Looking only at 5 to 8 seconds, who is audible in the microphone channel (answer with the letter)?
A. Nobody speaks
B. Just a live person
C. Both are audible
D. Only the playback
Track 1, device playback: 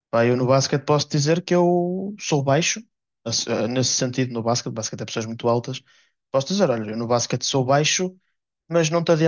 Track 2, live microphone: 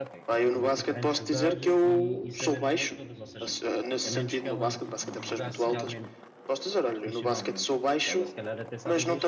C